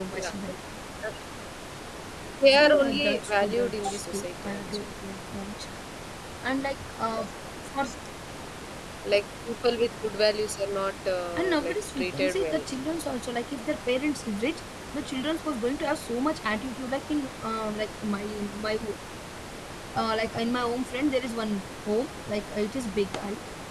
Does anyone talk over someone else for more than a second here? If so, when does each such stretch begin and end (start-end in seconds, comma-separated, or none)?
2.5-4.9, 11.4-12.6